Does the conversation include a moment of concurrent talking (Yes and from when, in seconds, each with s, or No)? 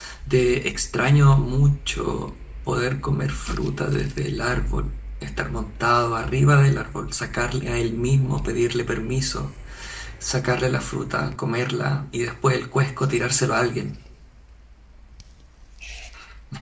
No